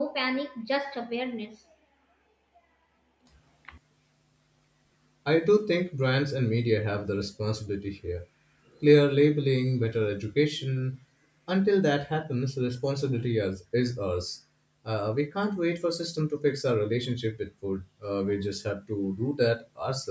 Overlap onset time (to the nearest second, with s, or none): none